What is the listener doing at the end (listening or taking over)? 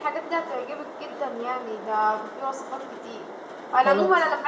listening